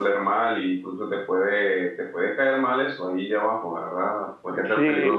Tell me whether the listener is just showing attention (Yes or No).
Yes